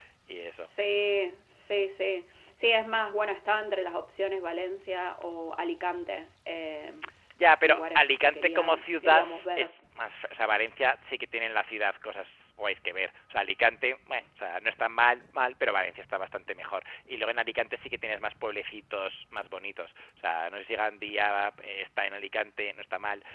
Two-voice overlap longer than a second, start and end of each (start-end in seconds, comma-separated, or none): 7.6-9.7